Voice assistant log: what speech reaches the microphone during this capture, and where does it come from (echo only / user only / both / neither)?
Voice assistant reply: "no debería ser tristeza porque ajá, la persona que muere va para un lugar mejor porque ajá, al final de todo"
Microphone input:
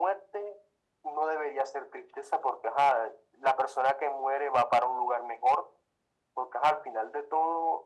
echo only